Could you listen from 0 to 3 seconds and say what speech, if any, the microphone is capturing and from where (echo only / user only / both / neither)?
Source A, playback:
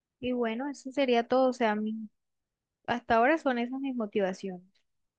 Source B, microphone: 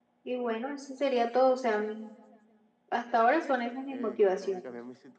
echo only